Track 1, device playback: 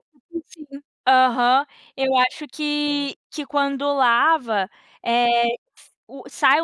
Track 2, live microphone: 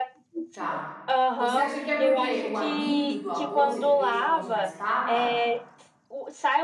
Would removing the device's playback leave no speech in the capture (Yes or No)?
No